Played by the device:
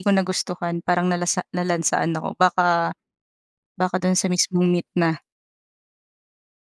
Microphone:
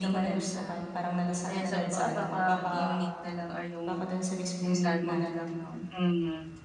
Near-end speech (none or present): present